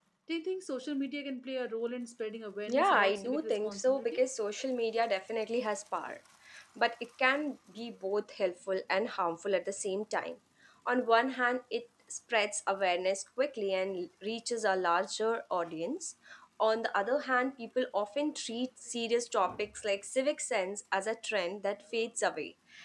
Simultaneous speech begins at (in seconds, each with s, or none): 2.7 s